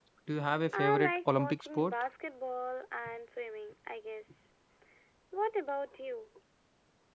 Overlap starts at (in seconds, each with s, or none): 0.7 s